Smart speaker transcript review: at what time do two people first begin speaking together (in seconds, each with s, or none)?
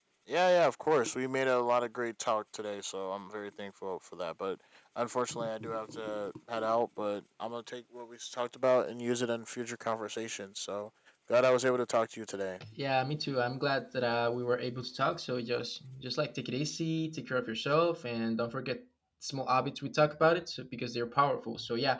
none